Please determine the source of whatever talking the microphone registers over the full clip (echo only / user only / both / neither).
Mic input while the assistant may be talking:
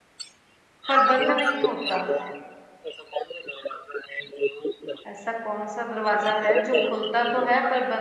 both